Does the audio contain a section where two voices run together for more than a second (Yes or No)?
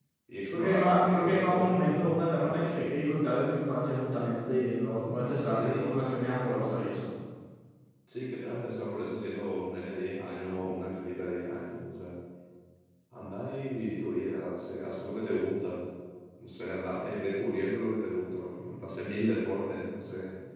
Yes